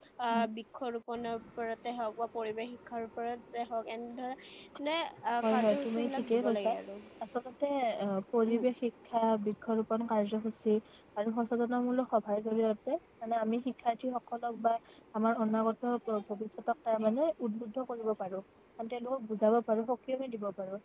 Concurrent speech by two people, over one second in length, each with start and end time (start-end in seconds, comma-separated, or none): 5.4-6.7